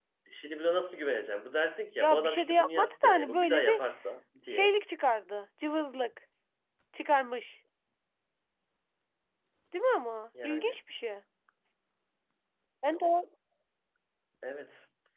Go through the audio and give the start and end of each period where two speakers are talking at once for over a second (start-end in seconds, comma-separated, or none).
2.0-3.8